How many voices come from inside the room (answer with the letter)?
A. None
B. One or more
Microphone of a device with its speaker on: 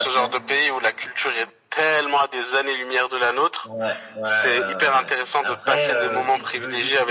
B